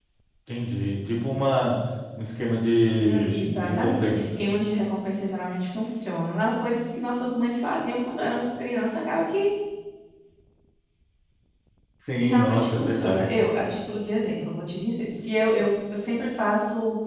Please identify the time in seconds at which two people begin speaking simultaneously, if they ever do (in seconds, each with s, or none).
3.0 s